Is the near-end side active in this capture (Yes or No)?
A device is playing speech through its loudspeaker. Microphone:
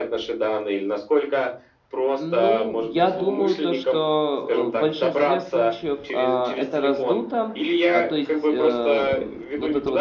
Yes